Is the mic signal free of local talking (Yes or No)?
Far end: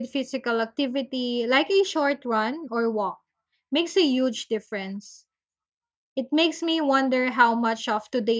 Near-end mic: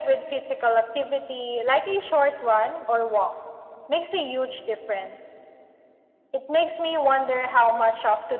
Yes